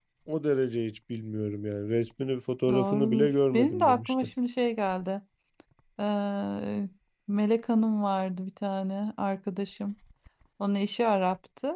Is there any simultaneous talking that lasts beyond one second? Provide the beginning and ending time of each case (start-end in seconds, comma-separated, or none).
2.7-4.1